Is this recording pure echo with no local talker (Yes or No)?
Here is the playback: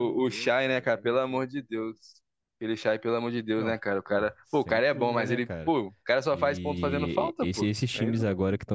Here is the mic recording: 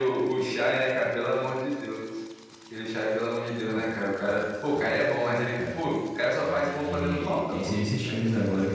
No